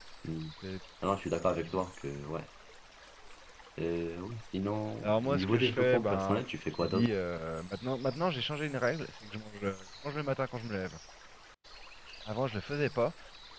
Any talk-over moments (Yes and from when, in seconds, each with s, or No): Yes, from 5.0 s